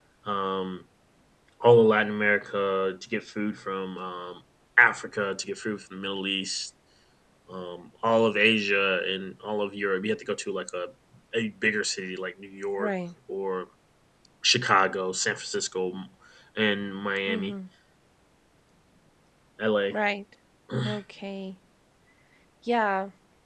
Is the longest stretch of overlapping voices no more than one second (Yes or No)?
Yes